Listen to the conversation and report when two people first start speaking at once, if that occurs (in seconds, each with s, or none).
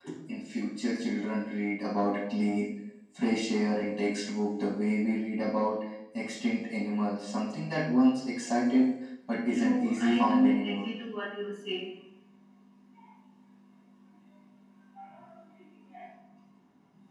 9.6 s